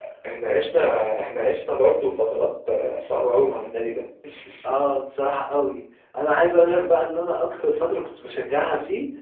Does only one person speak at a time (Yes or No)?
Yes